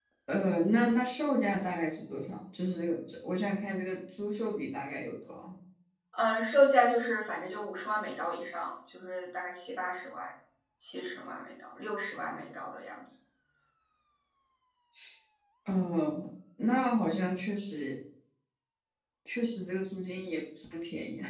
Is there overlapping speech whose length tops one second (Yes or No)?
No